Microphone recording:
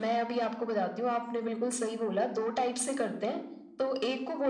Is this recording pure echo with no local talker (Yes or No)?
Yes